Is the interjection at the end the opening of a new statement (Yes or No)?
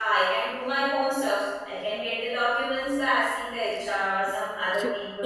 Yes